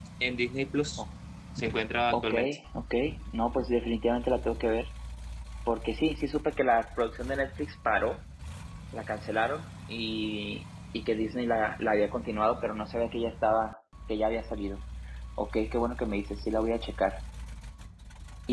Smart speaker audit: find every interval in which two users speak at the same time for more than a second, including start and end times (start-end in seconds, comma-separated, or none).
none